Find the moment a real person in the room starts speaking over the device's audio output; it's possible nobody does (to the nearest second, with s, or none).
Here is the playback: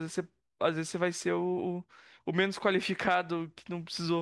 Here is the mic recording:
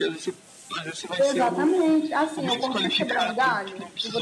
1 s